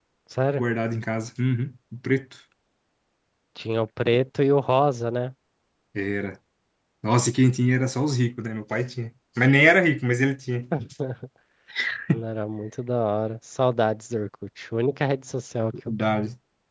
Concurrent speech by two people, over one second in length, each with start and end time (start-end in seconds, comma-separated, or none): none